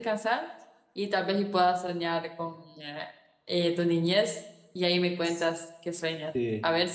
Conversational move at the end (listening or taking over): listening